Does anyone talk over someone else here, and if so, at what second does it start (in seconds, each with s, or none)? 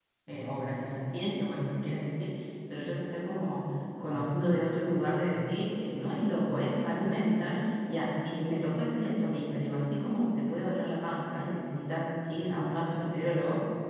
none